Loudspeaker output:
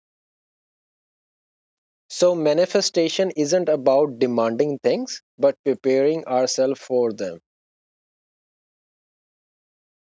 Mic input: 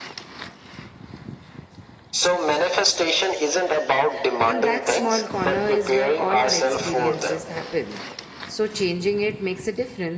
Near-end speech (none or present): present